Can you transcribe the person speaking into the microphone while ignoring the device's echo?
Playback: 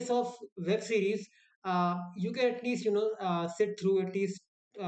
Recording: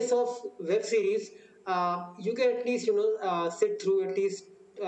none

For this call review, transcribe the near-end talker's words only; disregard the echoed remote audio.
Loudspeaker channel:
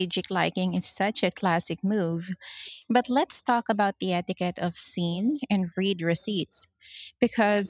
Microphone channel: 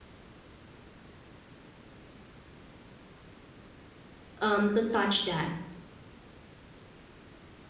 um to touch that.

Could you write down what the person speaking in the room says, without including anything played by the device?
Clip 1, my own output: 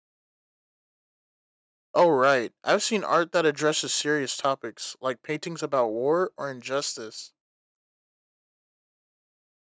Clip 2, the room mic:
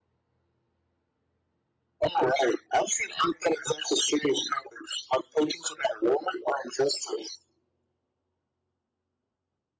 none

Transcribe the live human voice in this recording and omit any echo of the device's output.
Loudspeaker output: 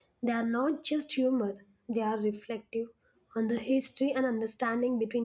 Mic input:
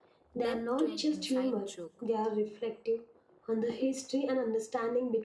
depth to an inside joke.

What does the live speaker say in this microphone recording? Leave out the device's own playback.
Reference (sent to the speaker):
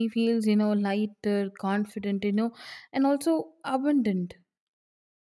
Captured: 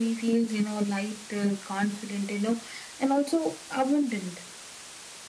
none

